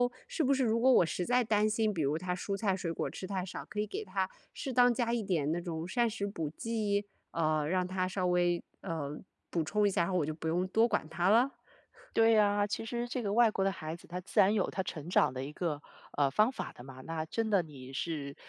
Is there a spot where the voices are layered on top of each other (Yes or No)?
No